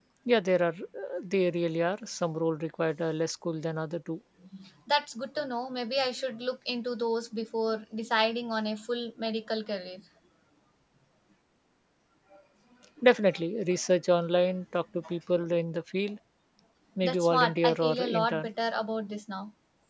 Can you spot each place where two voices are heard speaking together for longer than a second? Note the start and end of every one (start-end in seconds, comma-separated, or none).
17.0-18.5